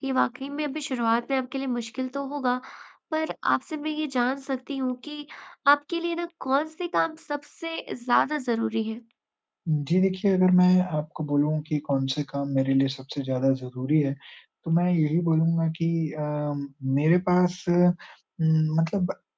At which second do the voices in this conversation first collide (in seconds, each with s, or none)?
none